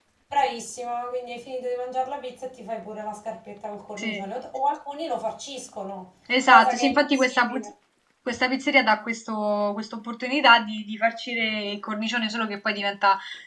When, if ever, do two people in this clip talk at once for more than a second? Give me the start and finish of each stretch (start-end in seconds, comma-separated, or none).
6.4-7.7